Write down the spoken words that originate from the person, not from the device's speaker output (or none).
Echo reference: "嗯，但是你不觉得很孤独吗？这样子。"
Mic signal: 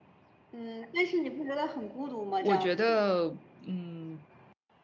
我觉得，嗯，